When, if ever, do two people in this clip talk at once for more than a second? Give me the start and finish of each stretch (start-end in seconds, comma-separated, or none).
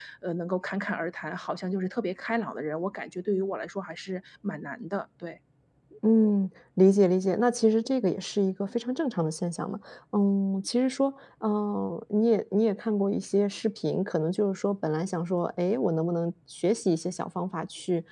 none